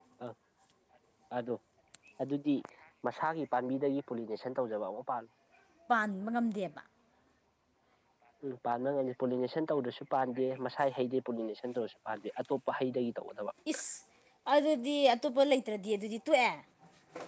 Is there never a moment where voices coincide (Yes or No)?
Yes